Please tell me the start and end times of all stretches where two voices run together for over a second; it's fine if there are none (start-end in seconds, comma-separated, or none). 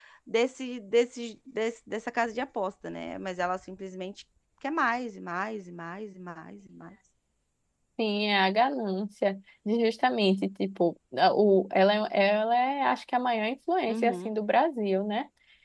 none